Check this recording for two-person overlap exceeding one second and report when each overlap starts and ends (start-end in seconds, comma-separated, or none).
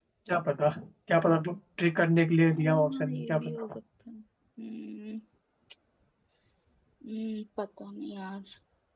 2.5-3.7